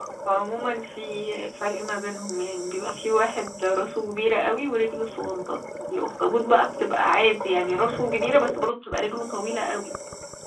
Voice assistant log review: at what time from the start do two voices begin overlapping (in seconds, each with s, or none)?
none